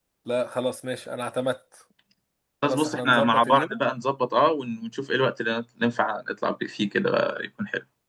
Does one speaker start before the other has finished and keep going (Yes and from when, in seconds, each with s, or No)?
Yes, from 2.6 s